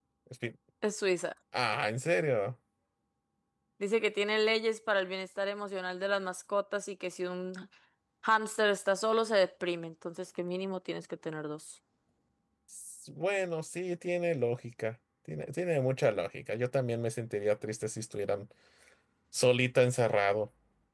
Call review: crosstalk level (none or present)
none